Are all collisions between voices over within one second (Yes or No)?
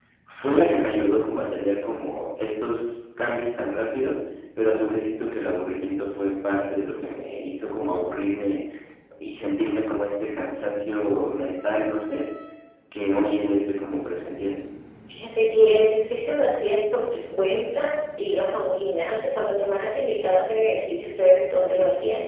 Yes